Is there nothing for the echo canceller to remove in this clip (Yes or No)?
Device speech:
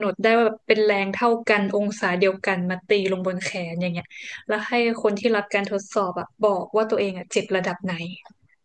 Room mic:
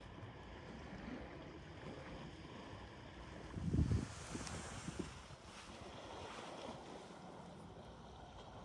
Yes